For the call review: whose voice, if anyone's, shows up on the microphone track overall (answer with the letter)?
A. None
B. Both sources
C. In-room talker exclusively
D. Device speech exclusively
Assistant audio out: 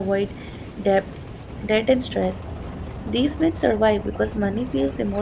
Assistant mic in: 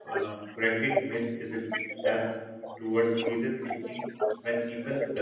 B